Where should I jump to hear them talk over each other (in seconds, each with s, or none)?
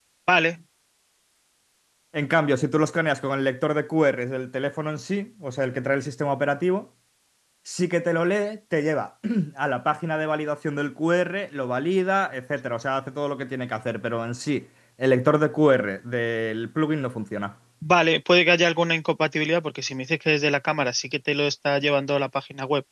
none